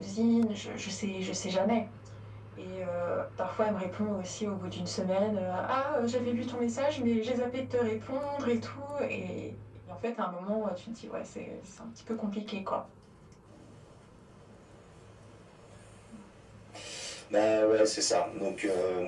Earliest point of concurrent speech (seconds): none

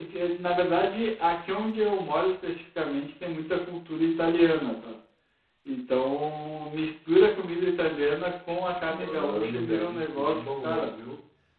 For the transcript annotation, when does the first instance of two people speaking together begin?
8.8 s

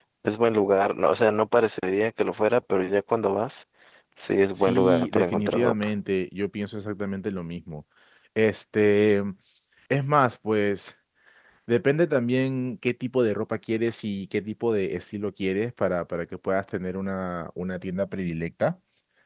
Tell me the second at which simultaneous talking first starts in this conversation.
4.5 s

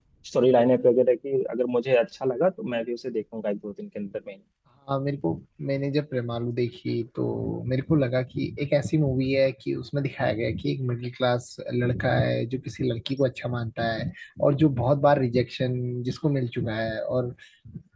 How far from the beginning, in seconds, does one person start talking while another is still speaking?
none

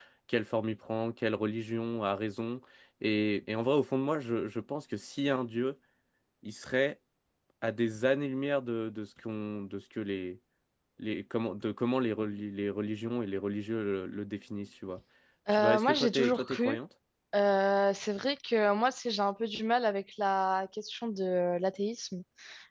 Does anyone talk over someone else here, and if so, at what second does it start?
15.5 s

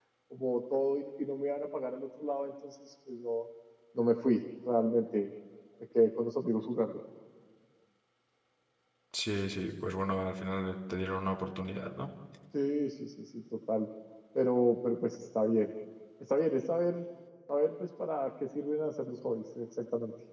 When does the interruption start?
none

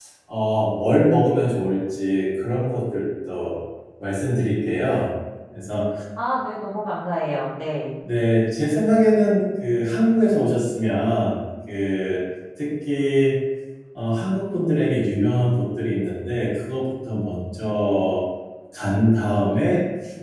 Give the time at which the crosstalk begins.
none

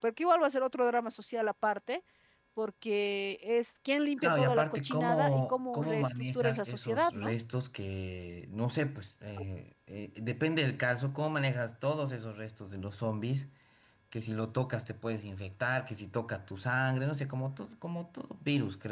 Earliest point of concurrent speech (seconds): 4.2 s

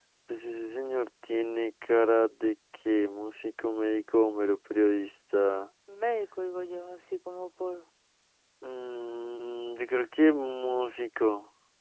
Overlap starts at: none

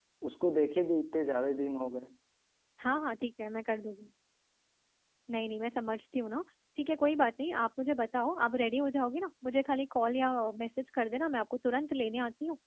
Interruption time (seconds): none

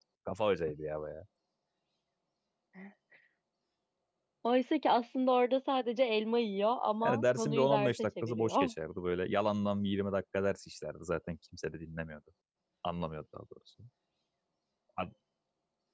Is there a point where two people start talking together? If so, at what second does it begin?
7.0 s

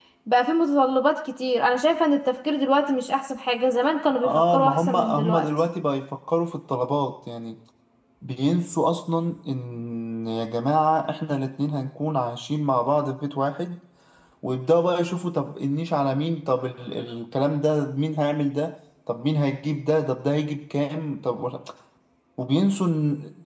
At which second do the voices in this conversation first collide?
4.2 s

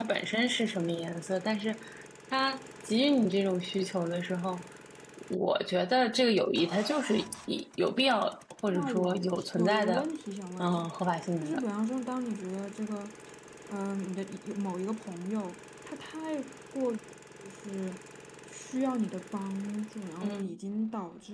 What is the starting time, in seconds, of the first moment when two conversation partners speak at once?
8.7 s

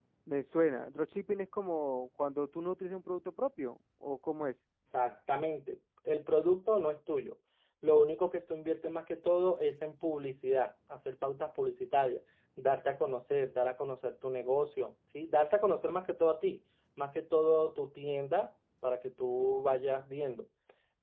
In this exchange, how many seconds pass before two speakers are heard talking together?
none

